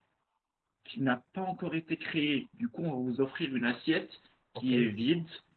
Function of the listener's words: listening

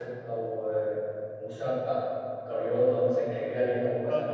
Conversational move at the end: taking over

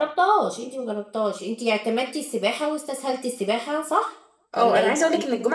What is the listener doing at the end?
taking over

